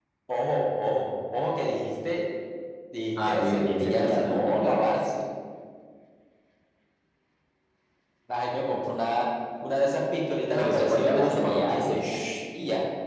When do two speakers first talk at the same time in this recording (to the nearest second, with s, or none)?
3 s